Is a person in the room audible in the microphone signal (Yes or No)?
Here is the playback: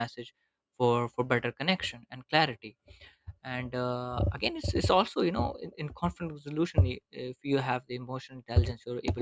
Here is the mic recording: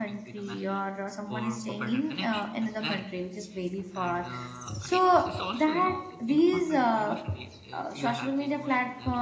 Yes